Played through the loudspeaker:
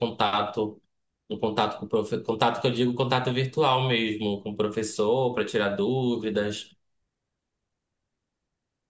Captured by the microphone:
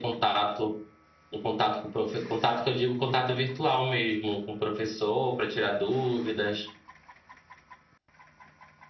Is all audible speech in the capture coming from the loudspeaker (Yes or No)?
Yes